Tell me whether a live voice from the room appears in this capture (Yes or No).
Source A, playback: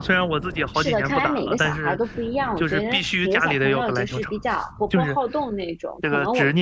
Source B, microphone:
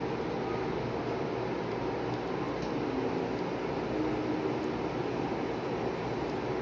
No